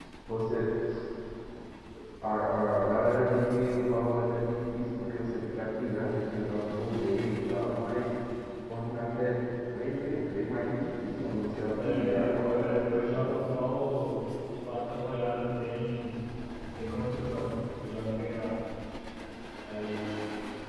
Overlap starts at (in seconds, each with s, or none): 11.7 s